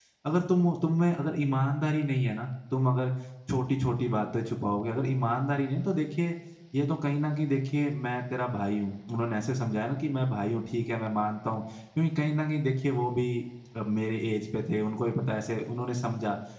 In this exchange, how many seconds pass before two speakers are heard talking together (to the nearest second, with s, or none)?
none